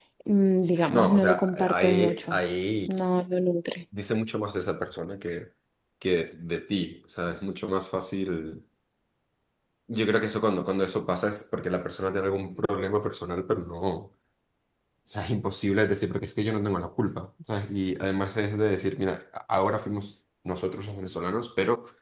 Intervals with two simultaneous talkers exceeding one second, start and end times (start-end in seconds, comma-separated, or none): 0.9-2.4